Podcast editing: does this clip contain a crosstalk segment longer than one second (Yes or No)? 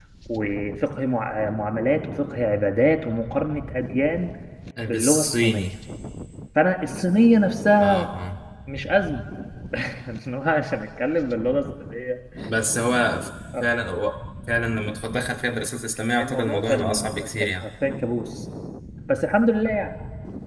Yes